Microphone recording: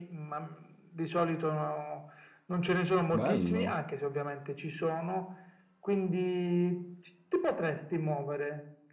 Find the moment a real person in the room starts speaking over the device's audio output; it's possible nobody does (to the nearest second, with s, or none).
3 s